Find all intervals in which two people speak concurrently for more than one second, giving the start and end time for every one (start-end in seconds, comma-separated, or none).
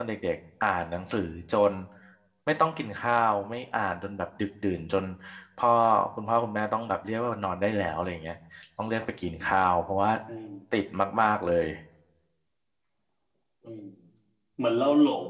none